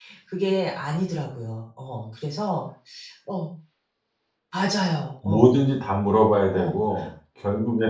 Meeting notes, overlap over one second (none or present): none